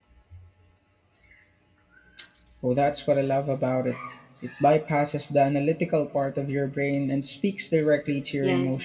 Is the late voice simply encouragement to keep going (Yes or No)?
No